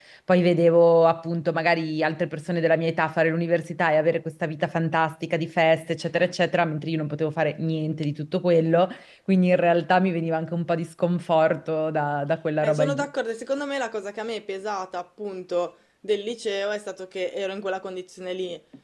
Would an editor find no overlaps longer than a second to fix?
Yes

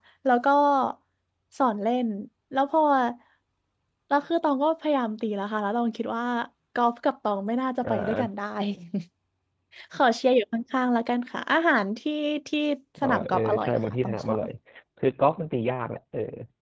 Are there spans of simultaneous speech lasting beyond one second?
Yes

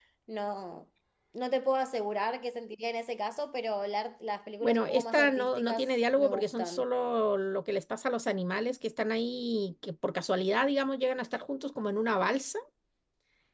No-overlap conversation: No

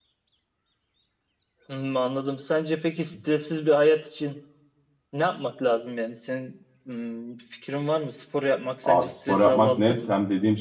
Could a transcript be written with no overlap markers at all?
No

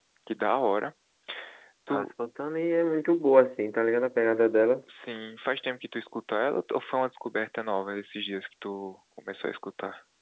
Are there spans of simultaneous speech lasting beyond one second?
No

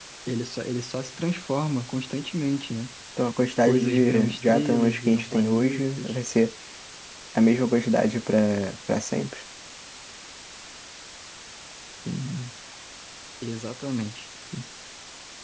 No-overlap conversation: No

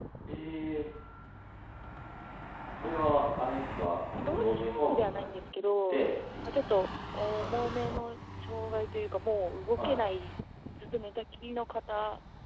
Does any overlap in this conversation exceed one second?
Yes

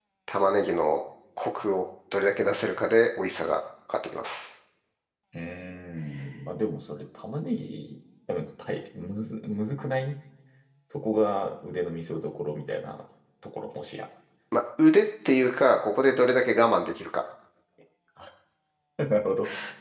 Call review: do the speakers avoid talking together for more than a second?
Yes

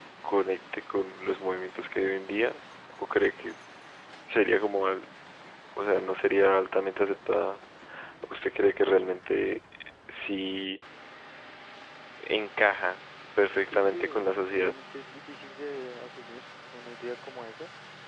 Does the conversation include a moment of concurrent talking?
Yes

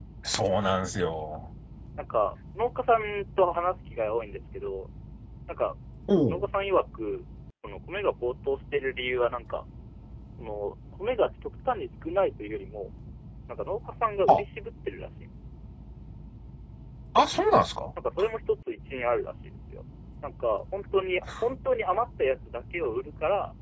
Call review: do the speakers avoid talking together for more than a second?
Yes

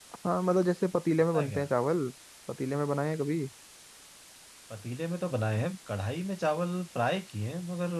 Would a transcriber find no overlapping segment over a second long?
Yes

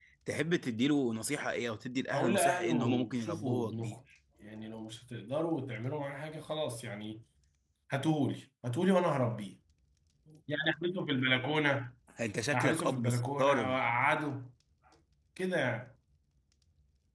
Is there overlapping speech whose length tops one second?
Yes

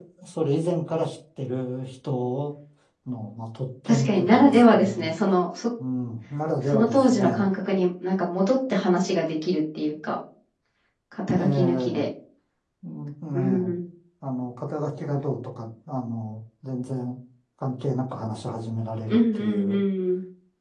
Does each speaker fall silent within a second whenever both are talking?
No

